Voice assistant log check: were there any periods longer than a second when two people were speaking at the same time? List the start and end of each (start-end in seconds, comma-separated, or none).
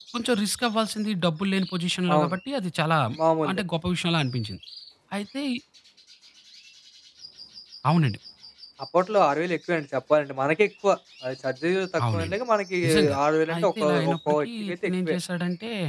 13.6-15.2